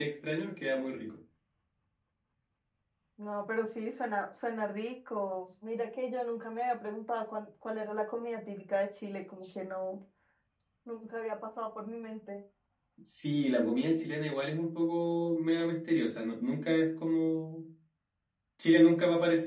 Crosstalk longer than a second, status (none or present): none